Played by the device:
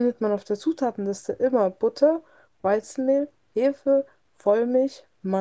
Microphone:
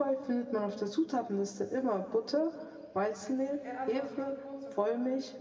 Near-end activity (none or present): present